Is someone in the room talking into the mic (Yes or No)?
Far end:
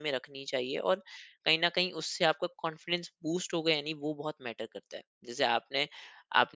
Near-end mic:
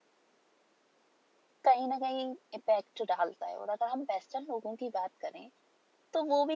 Yes